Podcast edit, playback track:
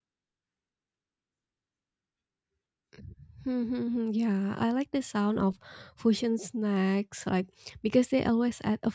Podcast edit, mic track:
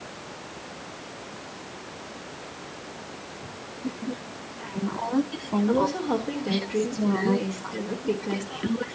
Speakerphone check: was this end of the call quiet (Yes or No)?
No